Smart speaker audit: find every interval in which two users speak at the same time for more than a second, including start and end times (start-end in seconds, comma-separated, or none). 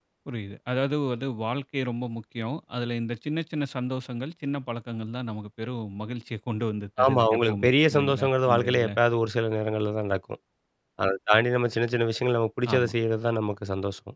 7.0-8.9